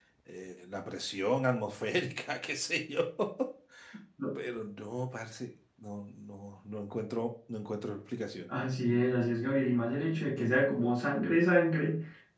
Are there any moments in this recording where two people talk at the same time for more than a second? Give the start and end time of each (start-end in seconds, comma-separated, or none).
none